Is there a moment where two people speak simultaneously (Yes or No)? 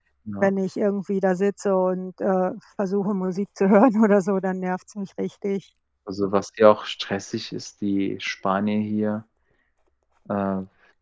No